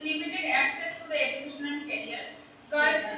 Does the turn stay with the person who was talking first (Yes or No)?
Yes